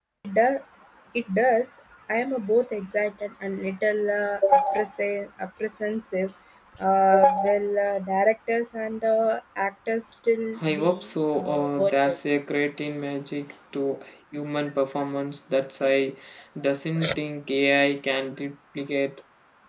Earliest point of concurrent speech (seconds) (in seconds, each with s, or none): 10.6 s